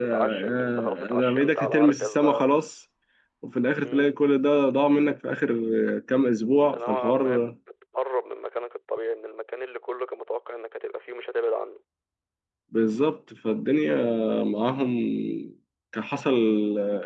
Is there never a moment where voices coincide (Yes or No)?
No